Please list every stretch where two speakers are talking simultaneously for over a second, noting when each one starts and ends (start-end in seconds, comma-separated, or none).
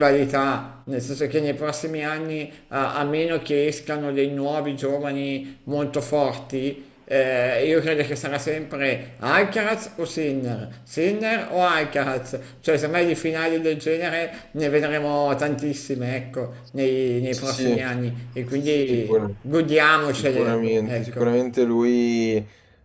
20.2-21.4